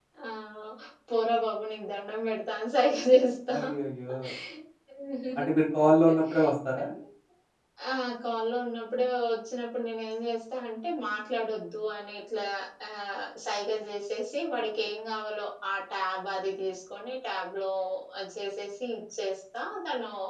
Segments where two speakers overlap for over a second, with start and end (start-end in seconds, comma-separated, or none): none